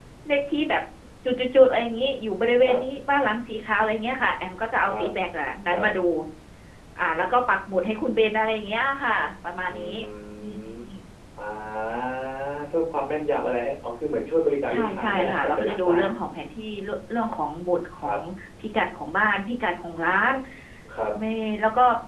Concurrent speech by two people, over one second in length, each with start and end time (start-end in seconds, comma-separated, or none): 14.7-16.0